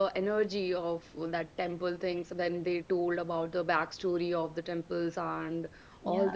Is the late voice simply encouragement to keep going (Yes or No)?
Yes